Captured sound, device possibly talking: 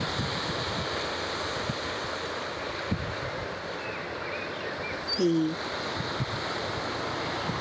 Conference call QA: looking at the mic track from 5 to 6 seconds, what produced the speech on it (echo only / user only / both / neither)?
user only